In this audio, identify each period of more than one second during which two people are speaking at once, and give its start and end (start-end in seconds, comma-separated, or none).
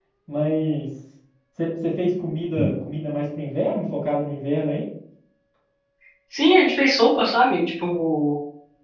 none